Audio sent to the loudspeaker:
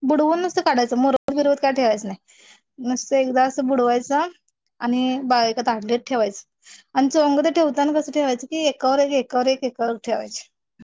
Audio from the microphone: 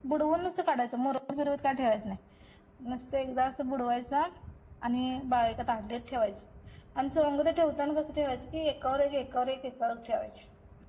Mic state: echo only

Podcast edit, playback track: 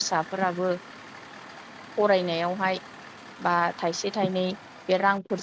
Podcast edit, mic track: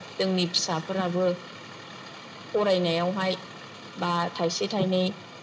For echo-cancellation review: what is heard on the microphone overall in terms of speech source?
echo only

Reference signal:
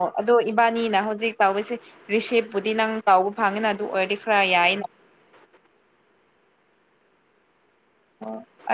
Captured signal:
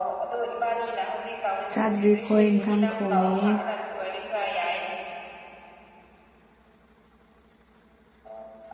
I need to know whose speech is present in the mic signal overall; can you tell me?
both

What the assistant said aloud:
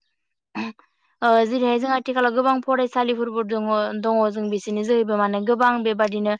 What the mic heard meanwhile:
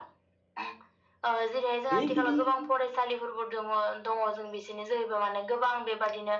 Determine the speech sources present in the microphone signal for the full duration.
both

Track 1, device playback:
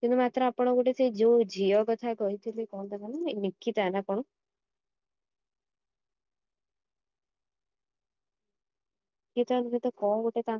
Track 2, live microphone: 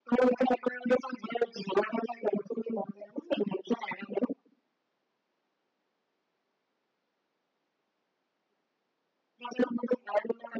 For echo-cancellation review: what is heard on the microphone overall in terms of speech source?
echo only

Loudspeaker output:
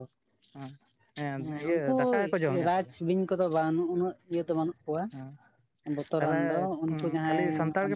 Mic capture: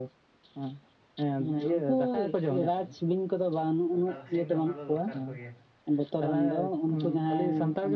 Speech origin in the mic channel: both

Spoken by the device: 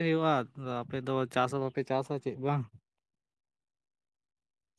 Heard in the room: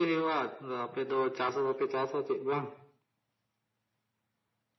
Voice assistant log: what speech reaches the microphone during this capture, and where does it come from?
echo only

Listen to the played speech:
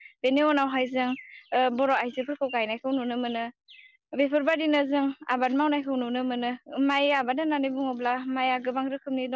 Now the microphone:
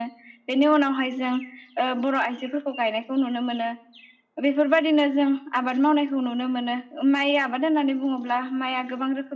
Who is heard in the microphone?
echo only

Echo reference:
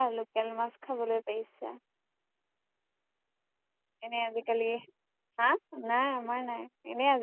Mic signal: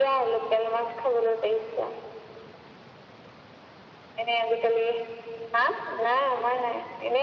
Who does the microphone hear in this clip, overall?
echo only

